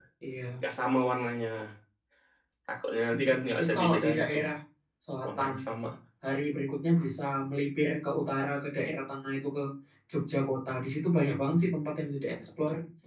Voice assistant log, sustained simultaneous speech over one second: present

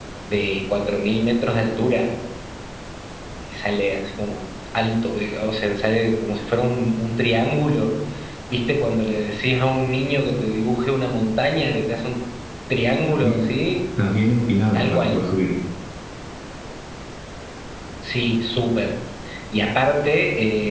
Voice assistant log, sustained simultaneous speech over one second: none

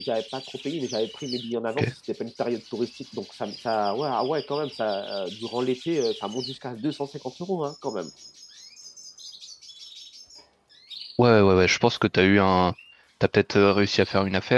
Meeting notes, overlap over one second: none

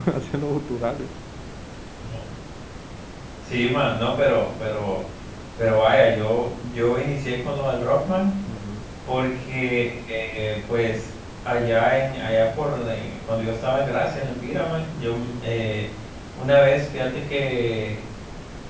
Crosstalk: none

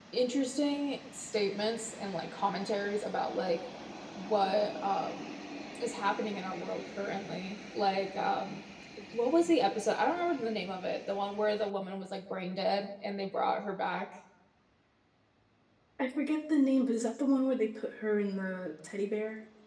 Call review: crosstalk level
none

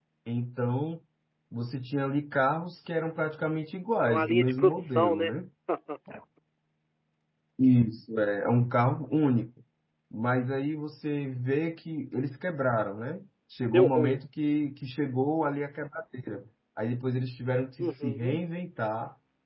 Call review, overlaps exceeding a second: present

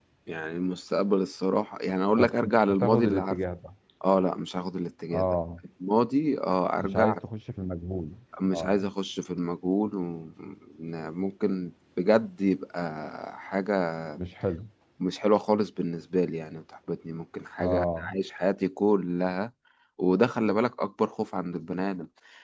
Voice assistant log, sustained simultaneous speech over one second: present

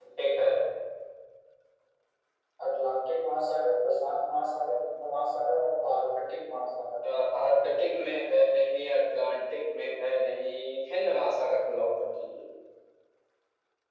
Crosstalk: none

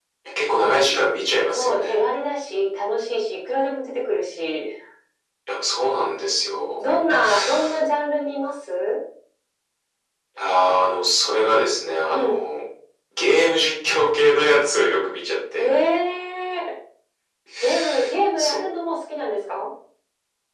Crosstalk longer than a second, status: none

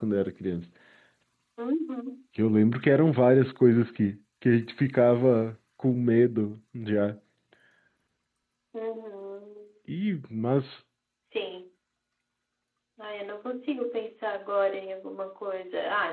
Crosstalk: none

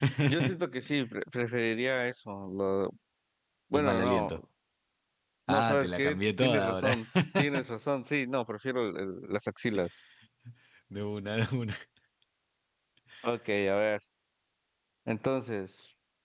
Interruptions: present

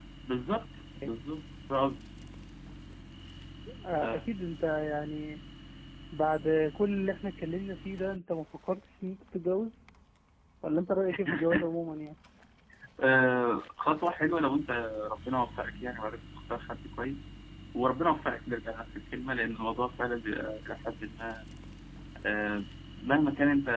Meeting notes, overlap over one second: none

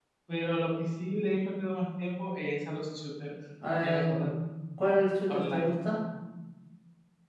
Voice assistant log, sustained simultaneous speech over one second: none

